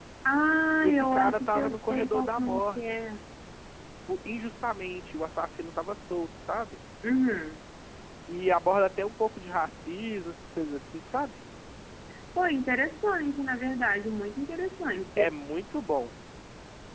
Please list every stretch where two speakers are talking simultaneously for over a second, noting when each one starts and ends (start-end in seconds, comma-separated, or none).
0.8-3.0